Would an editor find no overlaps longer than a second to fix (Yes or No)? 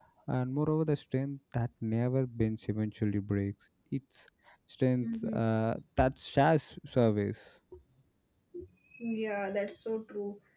Yes